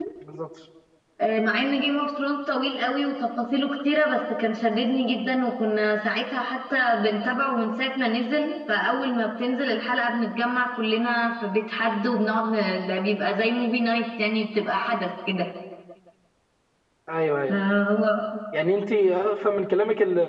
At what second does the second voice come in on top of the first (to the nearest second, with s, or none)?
none